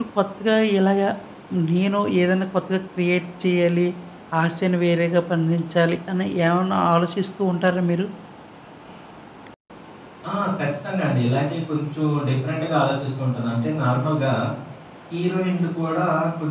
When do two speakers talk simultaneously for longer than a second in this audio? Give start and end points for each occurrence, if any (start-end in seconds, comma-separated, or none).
none